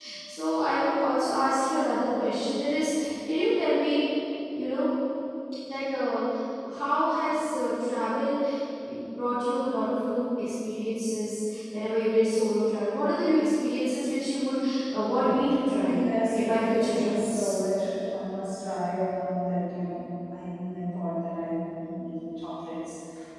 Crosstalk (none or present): present